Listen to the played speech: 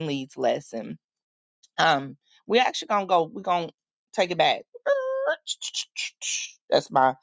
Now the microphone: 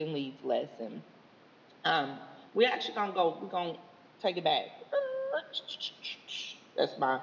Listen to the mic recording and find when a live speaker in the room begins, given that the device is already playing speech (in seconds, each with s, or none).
none